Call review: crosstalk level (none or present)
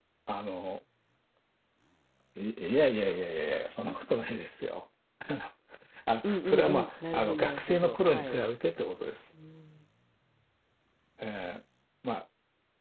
present